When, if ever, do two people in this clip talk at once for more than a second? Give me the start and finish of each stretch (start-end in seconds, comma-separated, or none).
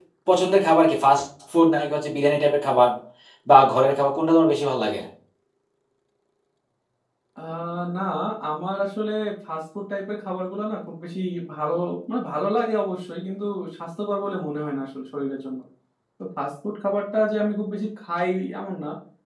none